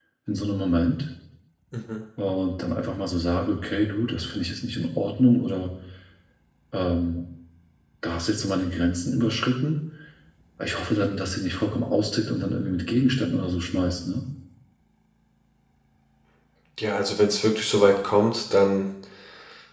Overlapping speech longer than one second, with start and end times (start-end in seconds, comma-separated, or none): none